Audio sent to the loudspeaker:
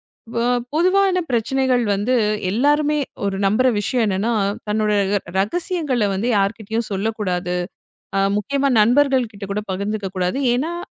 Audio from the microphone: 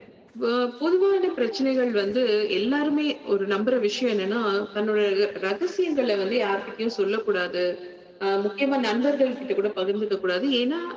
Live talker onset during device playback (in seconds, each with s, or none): none